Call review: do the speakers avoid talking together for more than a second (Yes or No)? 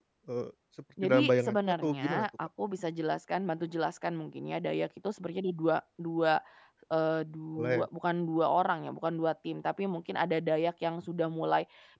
No